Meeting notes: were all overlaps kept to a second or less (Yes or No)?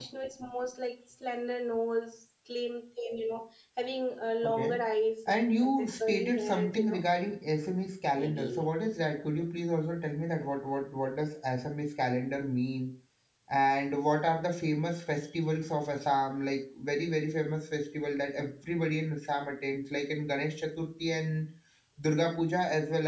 No